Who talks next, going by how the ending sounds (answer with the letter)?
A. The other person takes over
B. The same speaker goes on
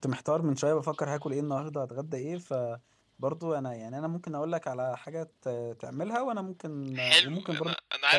A